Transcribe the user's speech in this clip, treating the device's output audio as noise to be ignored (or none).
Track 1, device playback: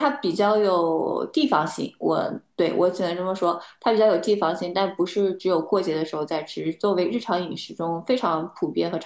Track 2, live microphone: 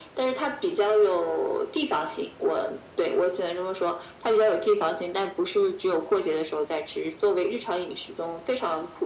none